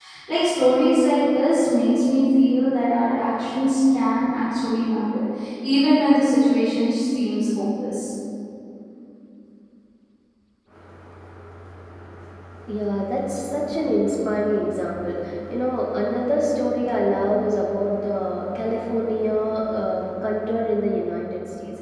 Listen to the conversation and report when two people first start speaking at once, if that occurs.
none

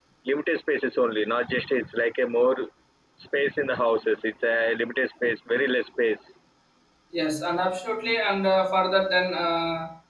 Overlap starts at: none

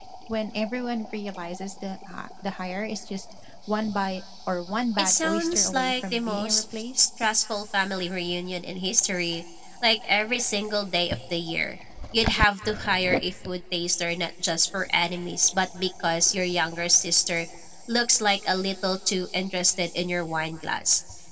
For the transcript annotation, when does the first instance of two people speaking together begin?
5.0 s

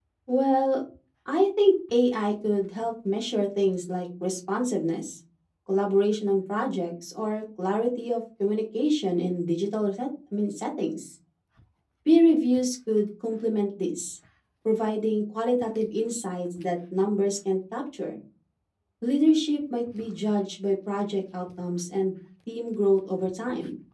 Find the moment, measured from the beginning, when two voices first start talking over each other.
none

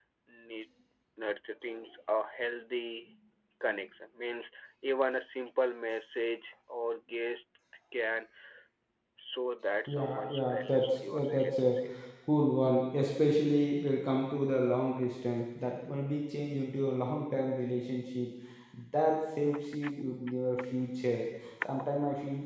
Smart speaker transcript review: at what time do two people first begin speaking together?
9.9 s

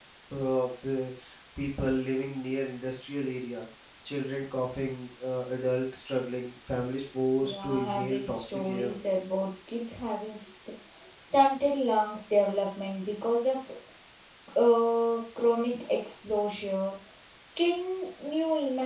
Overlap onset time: 7.4 s

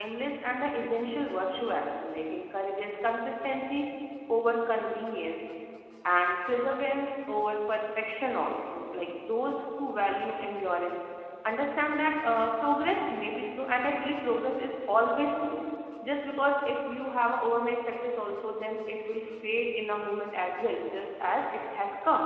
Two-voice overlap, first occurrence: none

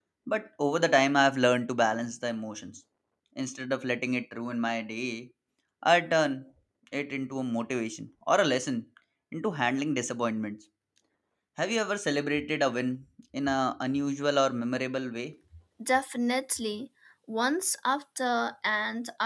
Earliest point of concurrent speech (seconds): none

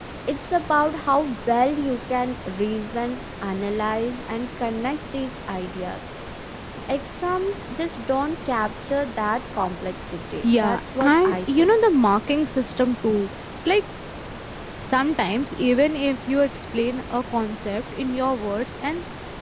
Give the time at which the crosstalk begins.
10.4 s

